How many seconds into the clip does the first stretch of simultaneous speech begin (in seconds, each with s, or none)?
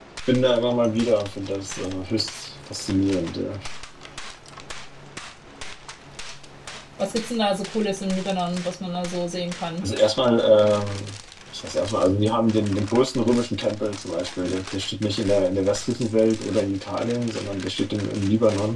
none